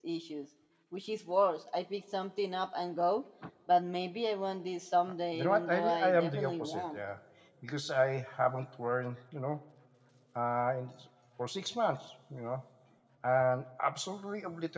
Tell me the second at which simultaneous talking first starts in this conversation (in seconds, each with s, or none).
5.3 s